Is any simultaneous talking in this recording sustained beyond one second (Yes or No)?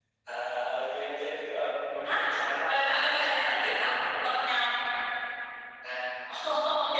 Yes